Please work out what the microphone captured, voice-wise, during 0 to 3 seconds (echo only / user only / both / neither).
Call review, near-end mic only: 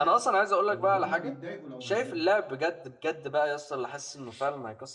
both